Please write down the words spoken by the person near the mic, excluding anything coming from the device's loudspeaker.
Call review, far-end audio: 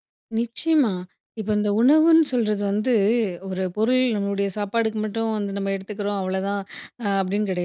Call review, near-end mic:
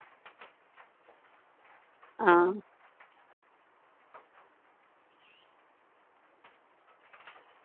ஆ.

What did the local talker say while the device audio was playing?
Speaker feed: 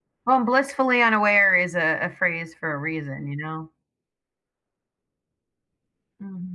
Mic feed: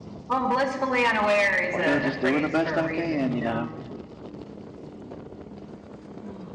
"Well, just doing the best I can, you know,

